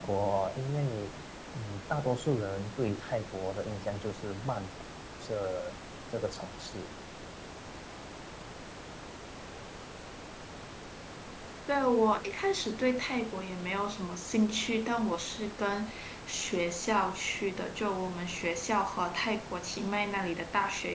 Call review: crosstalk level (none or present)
none